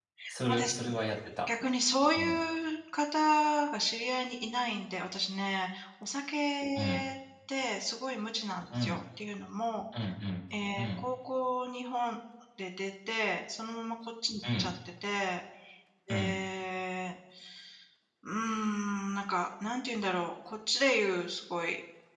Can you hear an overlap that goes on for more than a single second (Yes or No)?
No